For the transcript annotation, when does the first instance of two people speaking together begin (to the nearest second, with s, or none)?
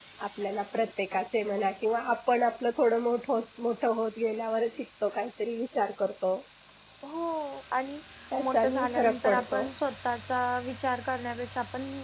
8 s